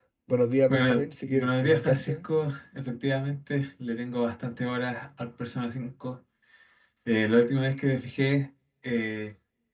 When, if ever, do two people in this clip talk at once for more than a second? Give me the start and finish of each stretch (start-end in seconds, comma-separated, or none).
0.7-2.2